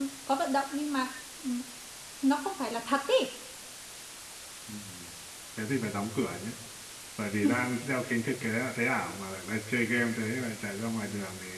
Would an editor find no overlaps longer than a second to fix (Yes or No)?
Yes